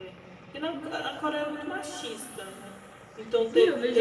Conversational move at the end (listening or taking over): taking over